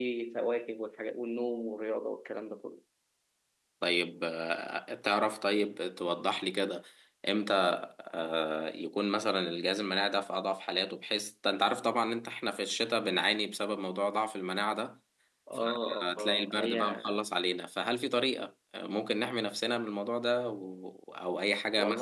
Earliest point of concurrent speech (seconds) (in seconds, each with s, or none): 15.5 s